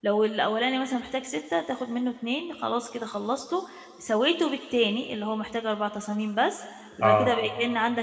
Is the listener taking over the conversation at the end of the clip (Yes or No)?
No